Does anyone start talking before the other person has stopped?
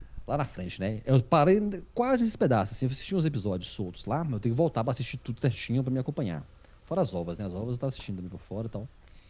No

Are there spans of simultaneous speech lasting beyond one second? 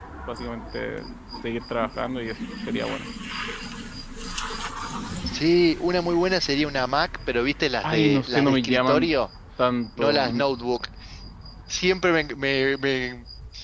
Yes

